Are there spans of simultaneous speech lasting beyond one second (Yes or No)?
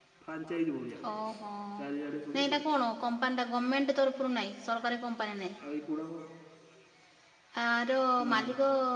No